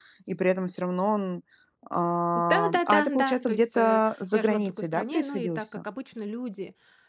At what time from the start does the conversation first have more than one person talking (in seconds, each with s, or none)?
2.5 s